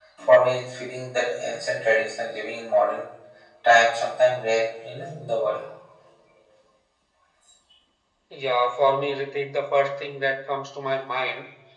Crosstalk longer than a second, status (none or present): none